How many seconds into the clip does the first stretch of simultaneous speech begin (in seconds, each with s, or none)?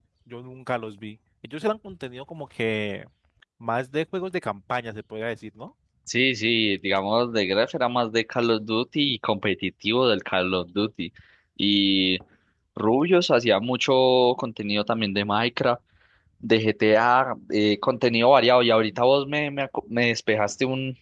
none